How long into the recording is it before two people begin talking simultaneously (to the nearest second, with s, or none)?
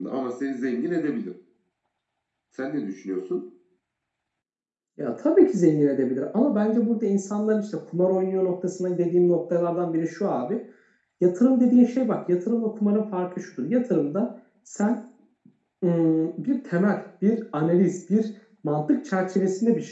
none